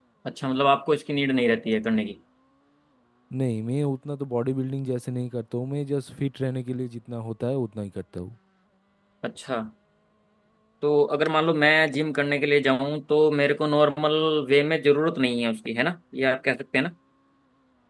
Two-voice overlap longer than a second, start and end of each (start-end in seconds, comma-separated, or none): none